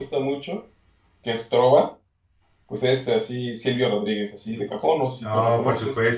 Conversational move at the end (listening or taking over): taking over